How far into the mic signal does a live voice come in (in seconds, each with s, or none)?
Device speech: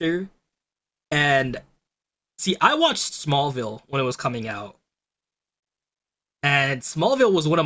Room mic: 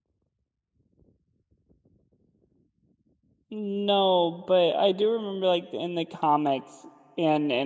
3.5 s